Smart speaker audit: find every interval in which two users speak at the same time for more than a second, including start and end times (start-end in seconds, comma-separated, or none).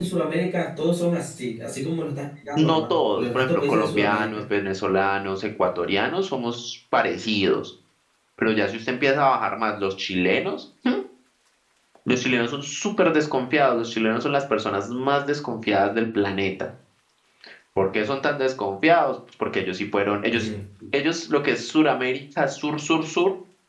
2.6-4.4